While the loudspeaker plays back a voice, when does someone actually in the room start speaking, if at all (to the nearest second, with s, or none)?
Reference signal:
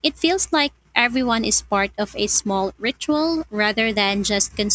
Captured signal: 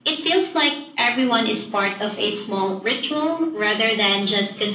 none